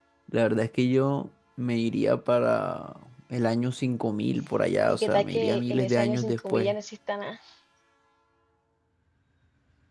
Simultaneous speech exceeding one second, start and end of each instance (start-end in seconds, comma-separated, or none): 4.9-6.7